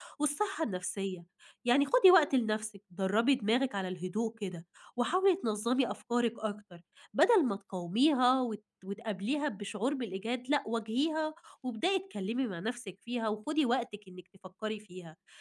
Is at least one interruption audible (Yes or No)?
No